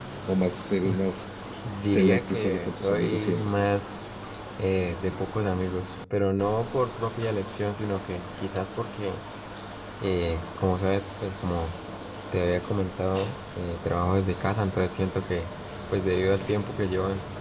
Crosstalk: present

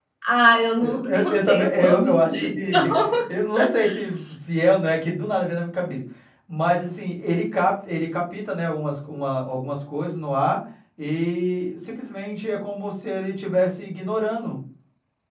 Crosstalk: present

